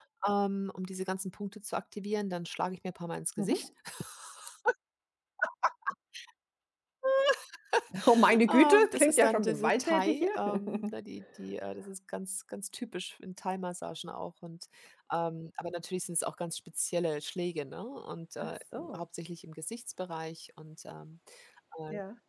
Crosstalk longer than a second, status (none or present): present